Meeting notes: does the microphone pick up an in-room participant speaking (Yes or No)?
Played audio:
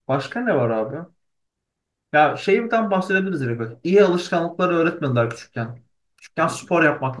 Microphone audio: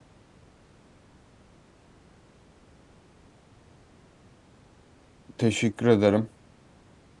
Yes